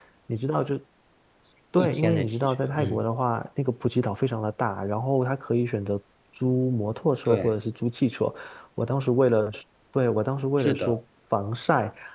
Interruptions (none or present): present